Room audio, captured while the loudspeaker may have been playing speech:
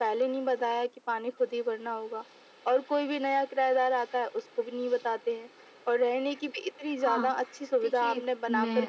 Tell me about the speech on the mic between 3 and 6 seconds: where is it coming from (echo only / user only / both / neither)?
echo only